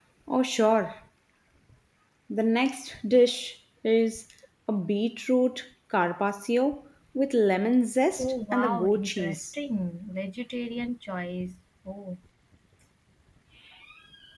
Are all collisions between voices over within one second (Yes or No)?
No